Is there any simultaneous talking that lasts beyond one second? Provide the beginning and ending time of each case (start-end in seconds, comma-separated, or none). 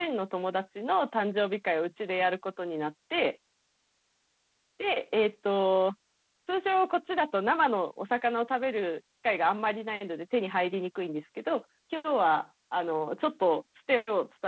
none